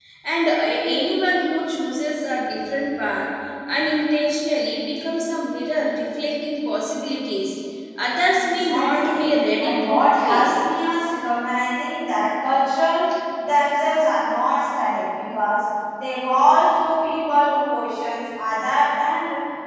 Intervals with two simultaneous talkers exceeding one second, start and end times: 8.4-10.6

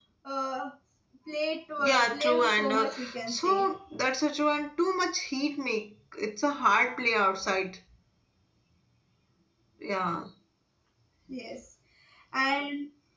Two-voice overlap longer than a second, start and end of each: 1.8-3.6

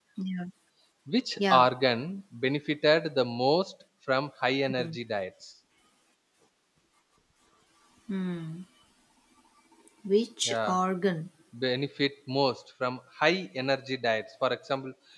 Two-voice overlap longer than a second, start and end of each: none

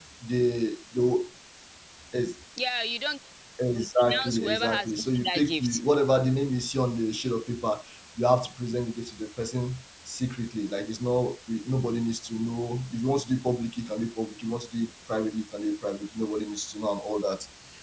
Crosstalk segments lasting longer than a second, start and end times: 3.7-5.8

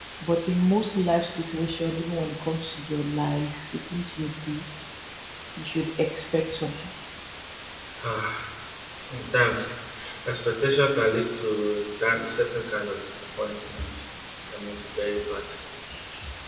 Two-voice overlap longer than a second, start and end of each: none

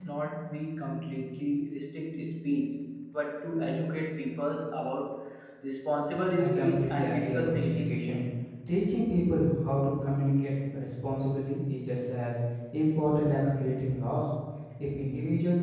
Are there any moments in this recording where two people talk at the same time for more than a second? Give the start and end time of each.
6.4-8.1

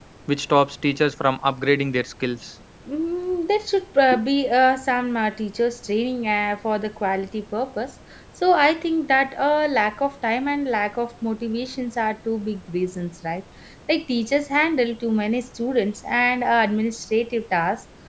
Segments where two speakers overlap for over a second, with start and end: none

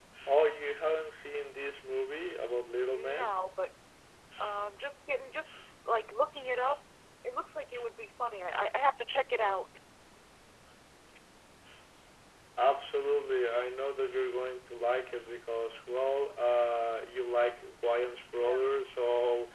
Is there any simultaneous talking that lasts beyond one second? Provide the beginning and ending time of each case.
none

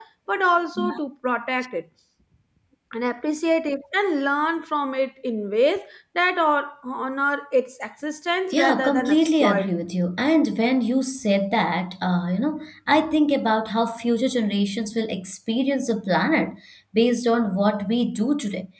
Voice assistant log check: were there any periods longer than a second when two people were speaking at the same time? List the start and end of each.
8.5-9.7

